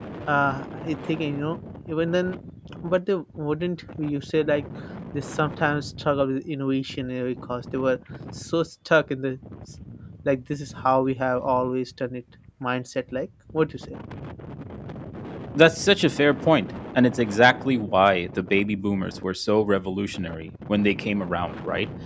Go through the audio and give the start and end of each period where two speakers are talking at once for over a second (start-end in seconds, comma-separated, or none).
none